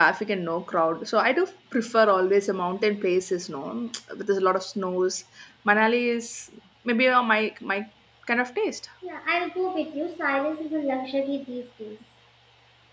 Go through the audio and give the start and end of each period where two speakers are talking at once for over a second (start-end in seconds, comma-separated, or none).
none